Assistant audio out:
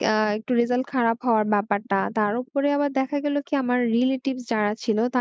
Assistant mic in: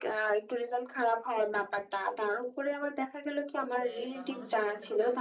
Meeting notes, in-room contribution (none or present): present